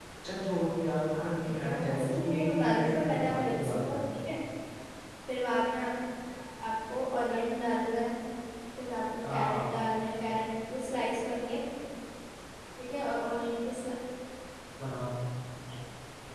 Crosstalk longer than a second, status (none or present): present